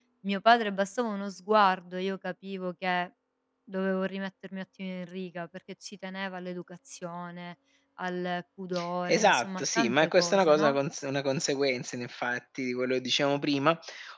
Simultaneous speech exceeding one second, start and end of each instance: 9.1-10.8

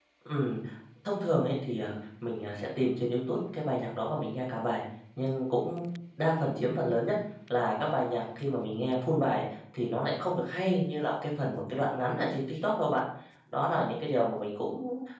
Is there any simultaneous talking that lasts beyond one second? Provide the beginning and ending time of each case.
none

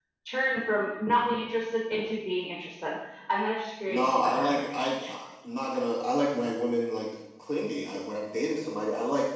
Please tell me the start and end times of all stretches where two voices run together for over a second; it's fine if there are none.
3.9-5.1

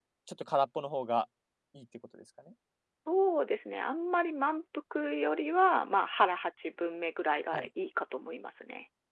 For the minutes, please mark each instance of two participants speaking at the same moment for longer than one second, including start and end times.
none

